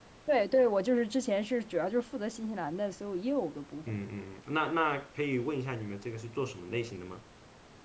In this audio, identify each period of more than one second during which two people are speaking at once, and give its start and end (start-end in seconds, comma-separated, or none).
none